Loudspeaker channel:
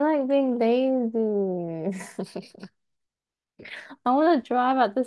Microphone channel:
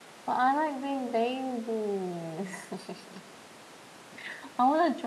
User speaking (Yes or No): No